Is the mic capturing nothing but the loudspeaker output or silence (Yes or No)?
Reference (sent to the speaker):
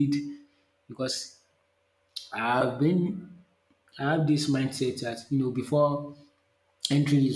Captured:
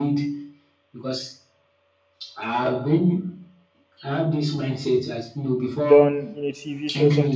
No